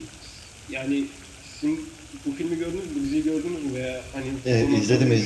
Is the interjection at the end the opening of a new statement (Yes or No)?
Yes